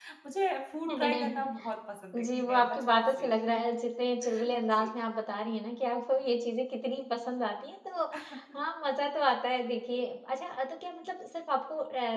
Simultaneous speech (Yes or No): Yes